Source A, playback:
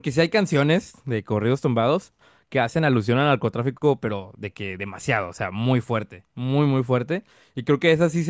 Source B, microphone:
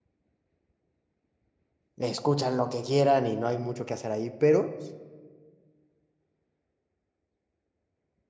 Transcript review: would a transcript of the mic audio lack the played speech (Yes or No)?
Yes